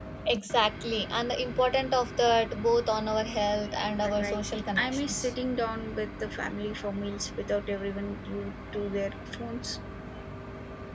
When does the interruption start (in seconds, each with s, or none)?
4.0 s